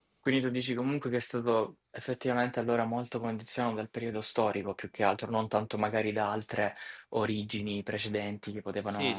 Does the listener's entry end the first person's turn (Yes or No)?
Yes